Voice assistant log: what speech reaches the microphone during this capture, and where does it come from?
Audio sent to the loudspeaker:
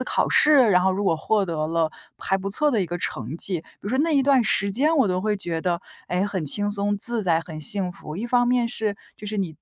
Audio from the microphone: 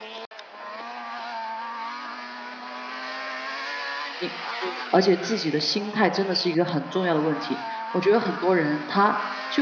user only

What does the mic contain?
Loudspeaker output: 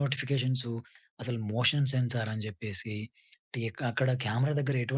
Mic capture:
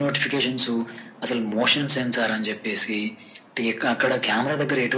echo only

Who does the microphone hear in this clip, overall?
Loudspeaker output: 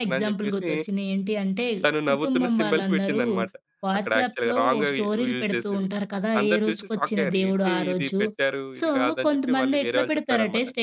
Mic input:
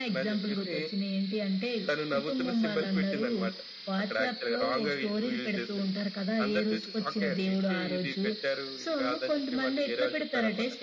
echo only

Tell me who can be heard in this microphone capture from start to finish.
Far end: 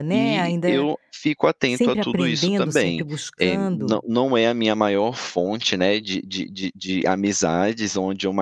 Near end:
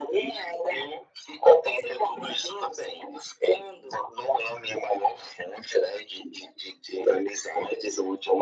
echo only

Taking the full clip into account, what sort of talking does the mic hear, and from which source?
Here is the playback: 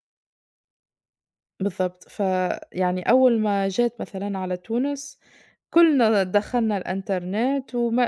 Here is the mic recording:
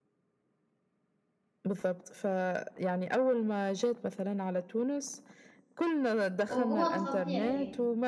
both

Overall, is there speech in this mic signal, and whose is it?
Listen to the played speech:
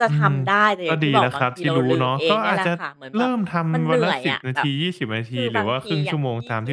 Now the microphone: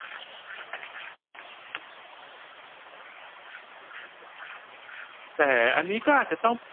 user only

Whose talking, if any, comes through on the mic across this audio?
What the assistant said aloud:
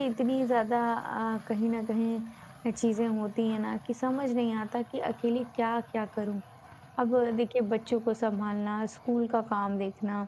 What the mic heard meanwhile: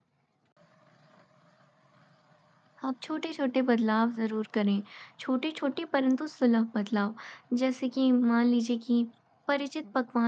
user only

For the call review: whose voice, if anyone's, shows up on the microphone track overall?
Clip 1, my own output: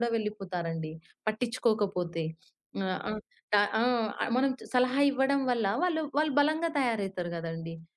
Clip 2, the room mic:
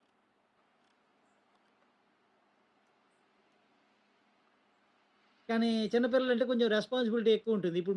user only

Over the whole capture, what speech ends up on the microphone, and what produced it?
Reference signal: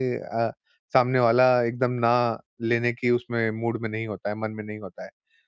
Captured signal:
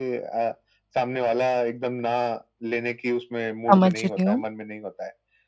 both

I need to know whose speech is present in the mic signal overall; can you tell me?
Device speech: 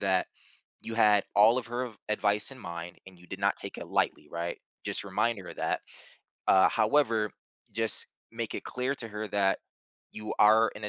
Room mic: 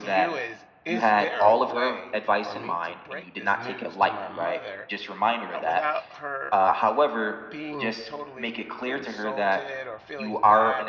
both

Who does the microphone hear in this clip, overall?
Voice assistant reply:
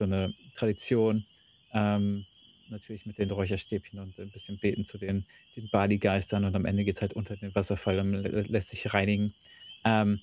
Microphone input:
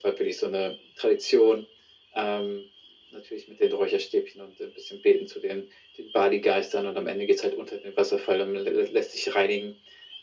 echo only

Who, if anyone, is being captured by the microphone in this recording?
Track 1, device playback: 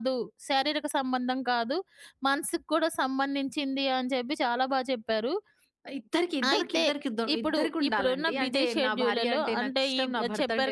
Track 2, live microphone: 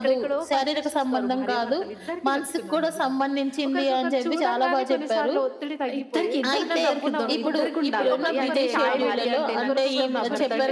both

